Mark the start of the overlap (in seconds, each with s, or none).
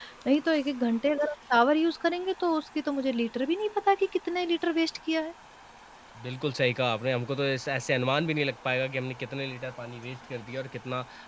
none